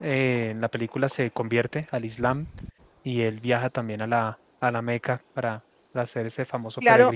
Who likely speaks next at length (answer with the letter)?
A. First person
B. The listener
B